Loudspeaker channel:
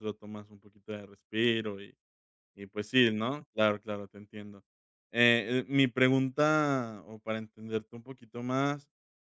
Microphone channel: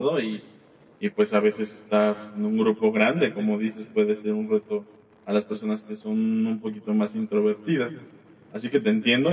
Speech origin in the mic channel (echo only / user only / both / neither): user only